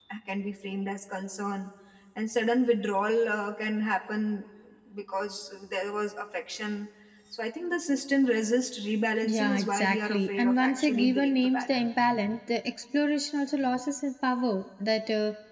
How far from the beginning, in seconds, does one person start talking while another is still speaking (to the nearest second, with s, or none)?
9 s